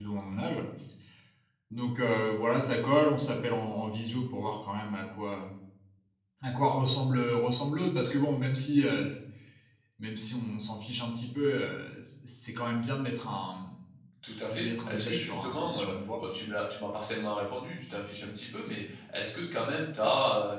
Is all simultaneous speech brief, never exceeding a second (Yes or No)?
No